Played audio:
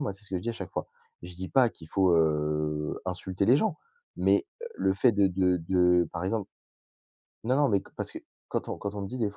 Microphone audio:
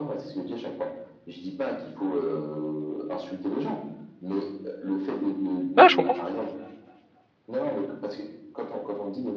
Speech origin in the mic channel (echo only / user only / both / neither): both